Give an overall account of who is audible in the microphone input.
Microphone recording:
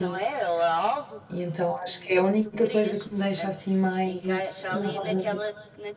both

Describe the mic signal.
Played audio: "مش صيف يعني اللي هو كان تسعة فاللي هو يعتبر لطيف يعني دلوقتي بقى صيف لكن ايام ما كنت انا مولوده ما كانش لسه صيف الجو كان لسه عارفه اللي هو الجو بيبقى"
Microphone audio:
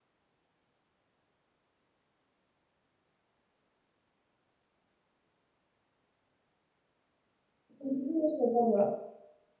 user only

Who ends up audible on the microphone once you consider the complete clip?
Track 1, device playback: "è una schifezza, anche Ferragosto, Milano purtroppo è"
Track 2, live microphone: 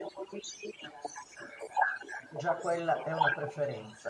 both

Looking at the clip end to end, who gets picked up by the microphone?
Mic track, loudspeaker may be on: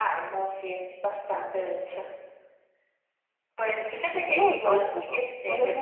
both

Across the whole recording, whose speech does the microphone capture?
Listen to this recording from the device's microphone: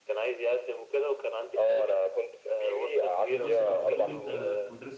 both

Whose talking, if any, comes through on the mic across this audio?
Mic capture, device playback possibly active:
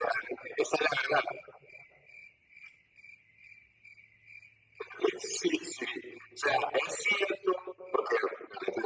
echo only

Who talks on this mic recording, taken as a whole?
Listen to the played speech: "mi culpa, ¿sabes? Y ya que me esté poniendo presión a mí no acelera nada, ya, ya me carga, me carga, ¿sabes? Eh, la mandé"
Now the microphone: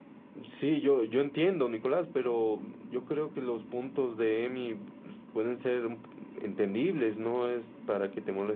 user only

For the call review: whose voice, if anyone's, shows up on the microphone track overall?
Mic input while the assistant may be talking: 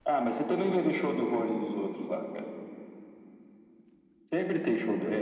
echo only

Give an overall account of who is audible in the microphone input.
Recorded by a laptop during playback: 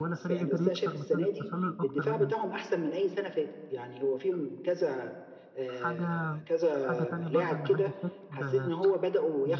both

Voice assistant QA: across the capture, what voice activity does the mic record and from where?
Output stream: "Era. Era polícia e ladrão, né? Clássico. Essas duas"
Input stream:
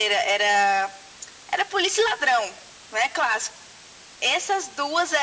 echo only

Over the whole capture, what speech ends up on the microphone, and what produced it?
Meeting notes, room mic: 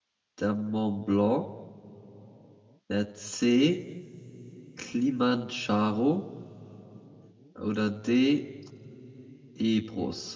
user only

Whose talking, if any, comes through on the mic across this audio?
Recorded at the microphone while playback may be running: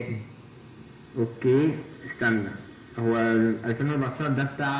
echo only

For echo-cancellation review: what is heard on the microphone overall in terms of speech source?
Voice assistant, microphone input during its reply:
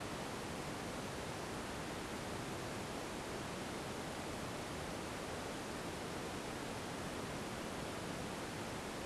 neither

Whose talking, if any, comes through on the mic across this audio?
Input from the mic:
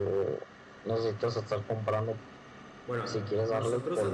both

